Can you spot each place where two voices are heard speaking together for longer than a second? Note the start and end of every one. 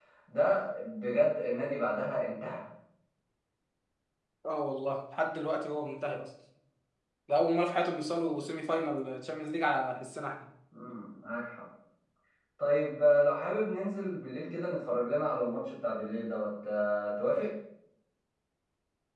none

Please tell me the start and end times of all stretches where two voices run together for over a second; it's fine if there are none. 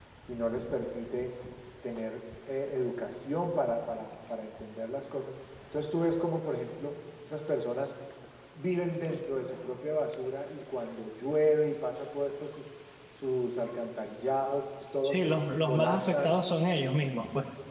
15.0-16.3

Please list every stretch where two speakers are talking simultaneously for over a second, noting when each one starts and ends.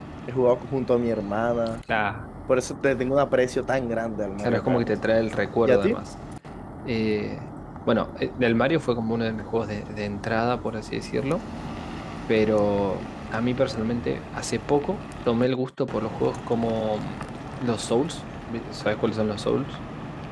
none

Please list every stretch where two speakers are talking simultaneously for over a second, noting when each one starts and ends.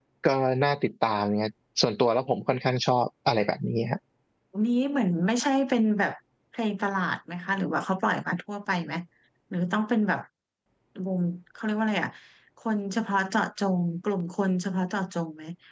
none

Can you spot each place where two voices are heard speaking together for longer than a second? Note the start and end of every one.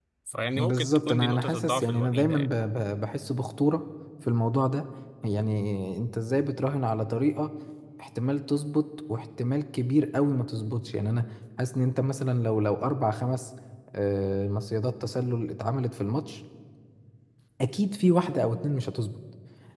0.6-2.5

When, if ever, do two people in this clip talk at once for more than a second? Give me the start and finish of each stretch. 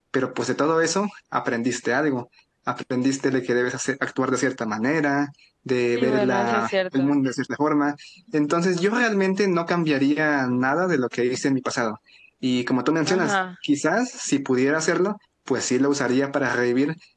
6.0-7.2

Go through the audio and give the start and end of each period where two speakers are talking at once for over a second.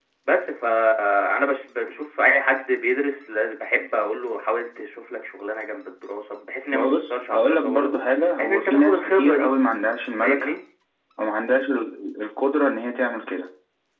6.7-9.5

